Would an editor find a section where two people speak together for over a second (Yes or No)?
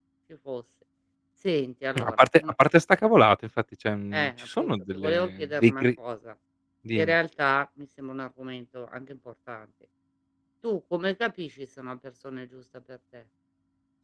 Yes